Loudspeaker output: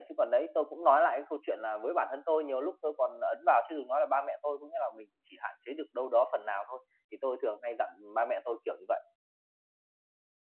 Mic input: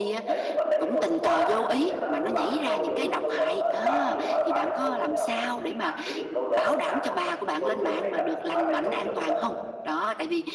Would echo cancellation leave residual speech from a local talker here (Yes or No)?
Yes